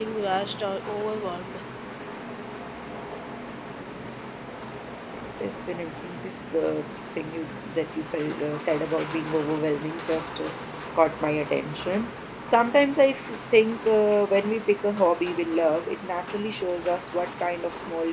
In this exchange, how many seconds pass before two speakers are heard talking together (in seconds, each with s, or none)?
none